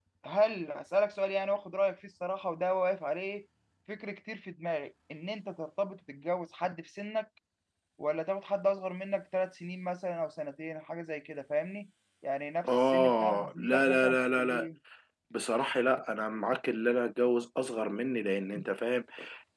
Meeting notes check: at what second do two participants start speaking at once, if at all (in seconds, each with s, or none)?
12.6 s